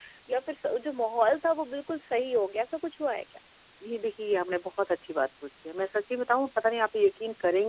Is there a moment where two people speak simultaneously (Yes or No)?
No